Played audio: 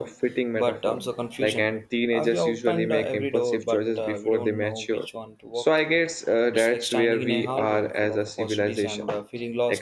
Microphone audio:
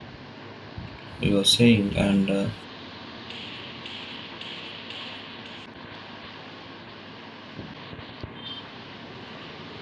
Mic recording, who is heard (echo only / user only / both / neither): user only